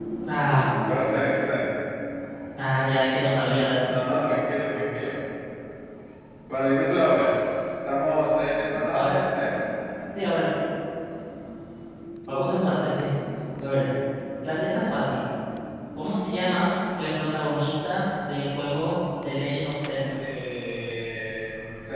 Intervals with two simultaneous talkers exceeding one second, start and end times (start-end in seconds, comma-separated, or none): none